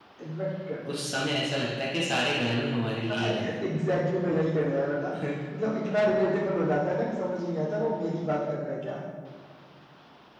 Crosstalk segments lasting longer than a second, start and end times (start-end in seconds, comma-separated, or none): none